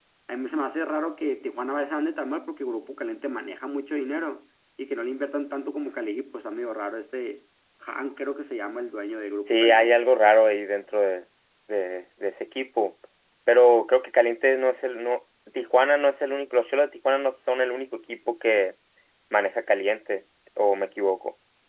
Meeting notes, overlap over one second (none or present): none